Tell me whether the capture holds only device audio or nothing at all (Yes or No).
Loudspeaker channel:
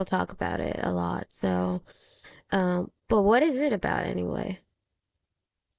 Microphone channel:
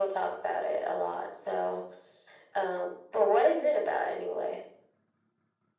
Yes